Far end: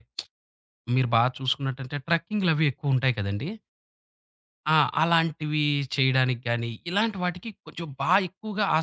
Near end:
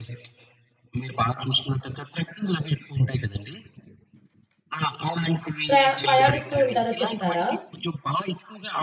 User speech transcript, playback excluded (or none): ప్రయా పయాణిస్తూ ఉంటారో చెప్తారా?